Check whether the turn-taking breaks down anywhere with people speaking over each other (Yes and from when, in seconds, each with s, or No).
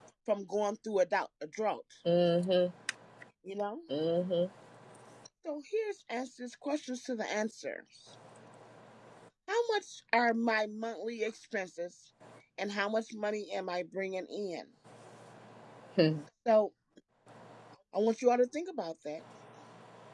No